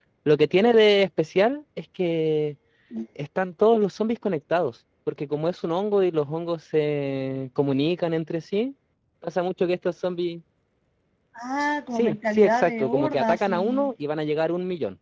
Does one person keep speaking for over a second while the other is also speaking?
Yes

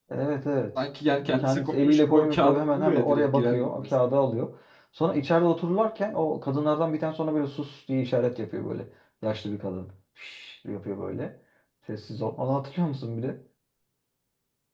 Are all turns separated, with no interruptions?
No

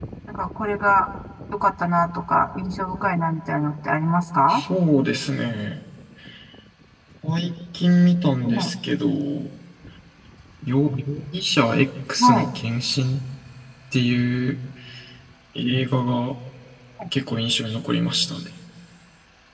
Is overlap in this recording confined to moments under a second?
Yes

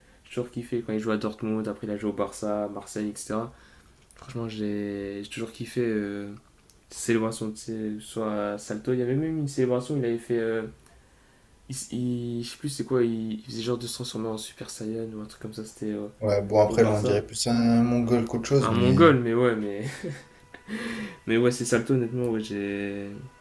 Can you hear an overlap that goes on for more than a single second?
No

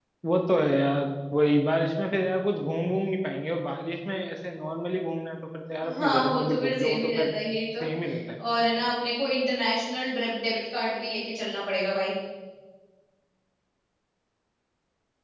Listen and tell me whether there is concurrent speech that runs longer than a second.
Yes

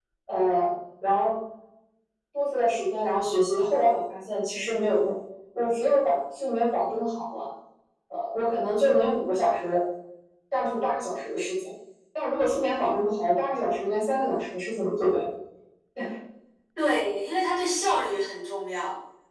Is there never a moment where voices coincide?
Yes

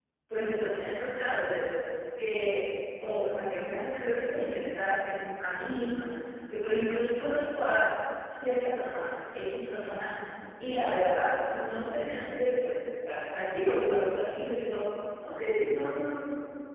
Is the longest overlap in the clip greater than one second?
No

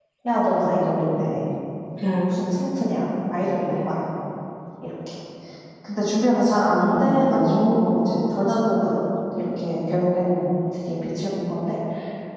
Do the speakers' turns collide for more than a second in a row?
Yes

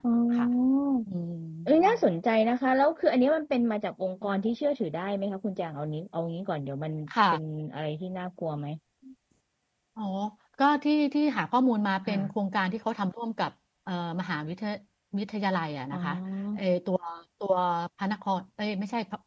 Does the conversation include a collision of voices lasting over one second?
No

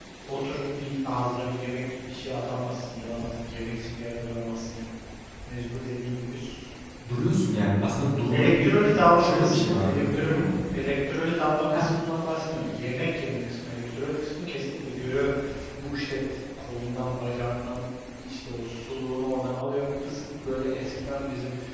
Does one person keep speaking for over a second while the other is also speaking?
Yes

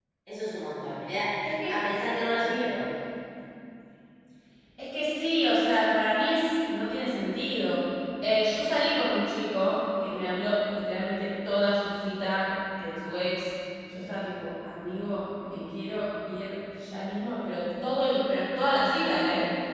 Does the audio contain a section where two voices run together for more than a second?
No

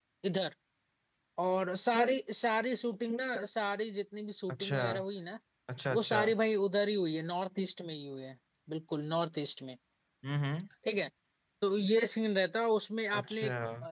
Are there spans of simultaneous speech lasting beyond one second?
No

